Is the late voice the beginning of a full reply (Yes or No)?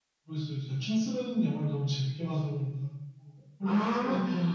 Yes